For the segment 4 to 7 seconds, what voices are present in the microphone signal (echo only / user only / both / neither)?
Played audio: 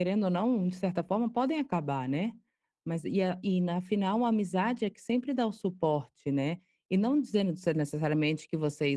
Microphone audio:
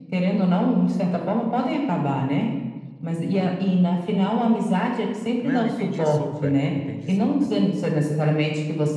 both